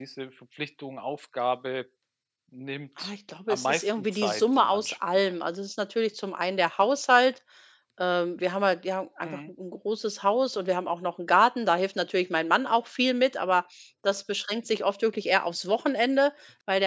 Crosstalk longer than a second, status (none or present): present